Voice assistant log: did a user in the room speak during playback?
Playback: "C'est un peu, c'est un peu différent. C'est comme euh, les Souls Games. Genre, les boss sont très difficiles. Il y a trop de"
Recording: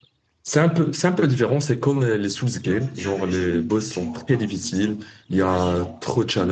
Yes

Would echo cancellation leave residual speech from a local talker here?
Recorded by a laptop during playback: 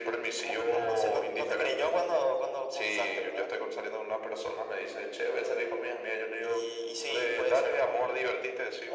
No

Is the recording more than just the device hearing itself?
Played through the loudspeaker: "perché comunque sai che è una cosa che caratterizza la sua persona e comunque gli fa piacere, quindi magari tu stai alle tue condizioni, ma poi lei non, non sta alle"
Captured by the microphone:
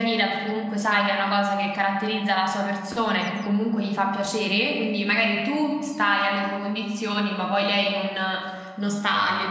No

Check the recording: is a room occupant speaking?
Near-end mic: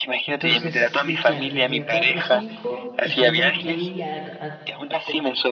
Yes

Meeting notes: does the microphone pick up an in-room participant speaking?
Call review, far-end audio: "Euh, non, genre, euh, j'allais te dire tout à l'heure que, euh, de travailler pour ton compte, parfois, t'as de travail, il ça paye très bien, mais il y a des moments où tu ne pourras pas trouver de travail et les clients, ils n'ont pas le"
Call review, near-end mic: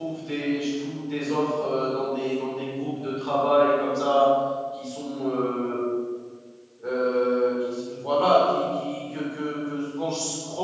Yes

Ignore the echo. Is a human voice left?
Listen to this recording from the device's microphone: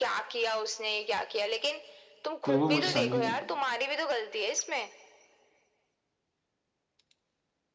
Yes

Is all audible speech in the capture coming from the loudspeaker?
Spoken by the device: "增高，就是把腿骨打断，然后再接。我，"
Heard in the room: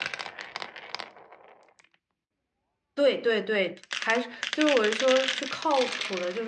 No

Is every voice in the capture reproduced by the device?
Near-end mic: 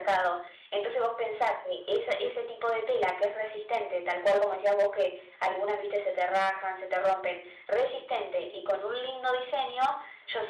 Yes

